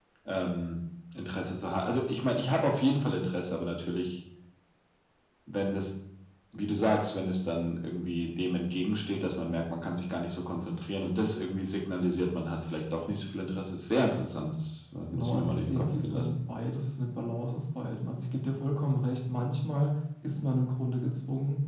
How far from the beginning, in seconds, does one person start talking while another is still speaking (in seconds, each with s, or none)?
15.1 s